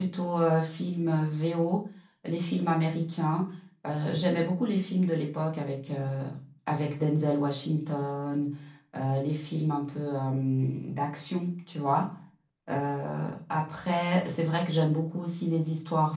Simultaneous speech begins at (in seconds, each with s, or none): none